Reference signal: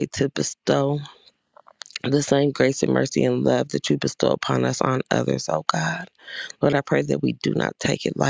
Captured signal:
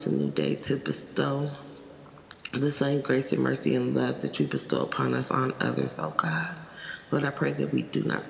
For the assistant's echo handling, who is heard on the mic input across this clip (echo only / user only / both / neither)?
echo only